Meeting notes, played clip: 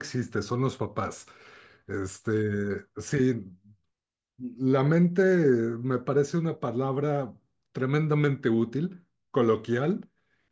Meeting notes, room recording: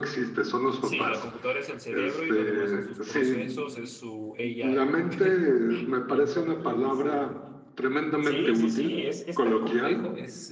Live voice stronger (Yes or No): No